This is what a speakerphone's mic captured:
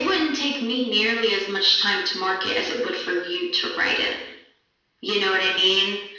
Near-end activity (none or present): none